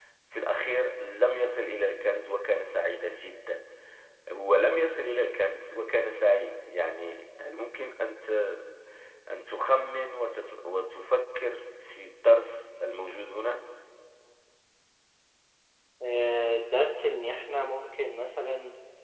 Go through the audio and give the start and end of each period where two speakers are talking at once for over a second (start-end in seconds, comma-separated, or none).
none